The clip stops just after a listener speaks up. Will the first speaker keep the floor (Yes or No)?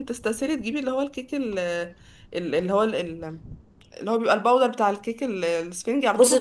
No